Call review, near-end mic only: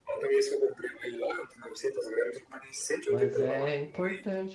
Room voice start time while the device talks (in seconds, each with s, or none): 3.0 s